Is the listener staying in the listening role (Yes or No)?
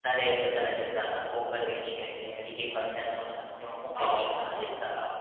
Yes